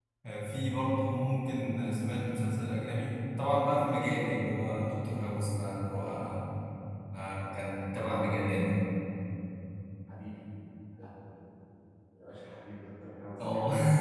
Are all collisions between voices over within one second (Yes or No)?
Yes